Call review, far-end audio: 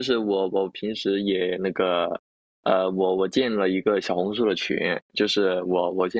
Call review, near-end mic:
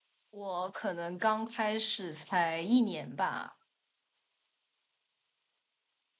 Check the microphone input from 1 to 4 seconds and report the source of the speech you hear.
user only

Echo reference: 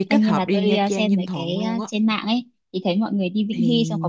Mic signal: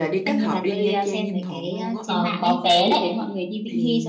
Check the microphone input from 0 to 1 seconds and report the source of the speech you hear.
echo only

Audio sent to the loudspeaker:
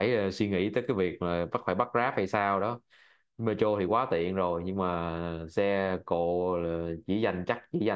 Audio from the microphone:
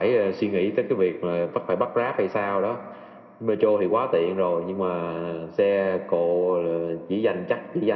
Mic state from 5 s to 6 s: echo only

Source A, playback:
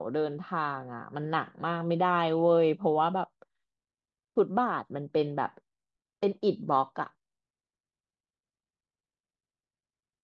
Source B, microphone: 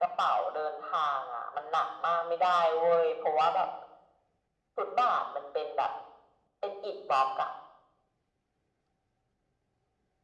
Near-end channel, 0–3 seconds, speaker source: echo only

